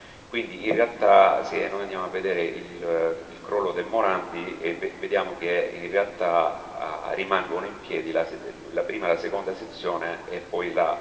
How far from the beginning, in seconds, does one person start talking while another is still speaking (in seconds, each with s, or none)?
none